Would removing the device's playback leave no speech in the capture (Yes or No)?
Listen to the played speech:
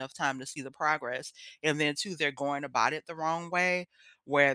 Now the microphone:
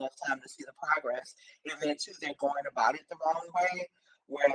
Yes